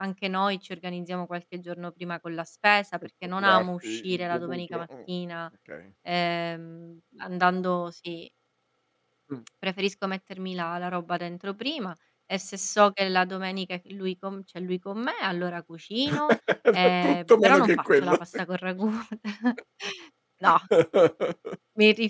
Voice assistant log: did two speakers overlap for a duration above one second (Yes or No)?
Yes